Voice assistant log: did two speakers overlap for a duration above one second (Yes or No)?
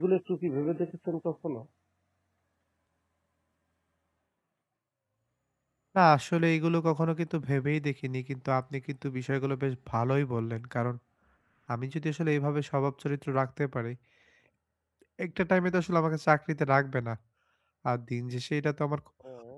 No